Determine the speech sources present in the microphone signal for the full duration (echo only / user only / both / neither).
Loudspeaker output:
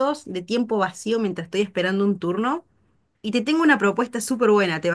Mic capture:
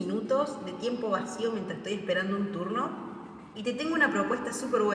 echo only